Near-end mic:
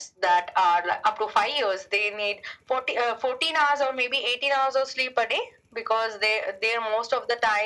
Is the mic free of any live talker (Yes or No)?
Yes